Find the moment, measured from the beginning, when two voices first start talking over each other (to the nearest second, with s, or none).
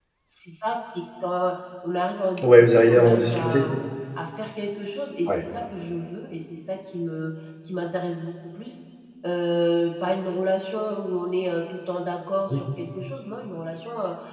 2 s